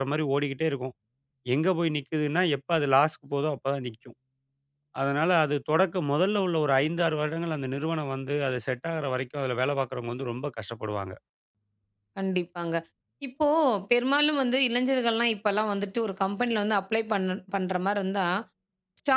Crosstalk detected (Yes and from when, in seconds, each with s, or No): No